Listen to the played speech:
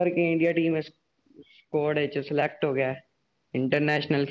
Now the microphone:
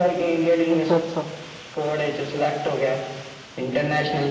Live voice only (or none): ਅੱਛਾ- ਅੱਛਾ!